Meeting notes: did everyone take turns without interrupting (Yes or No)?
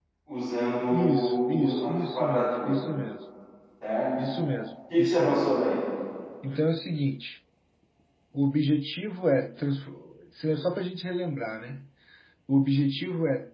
No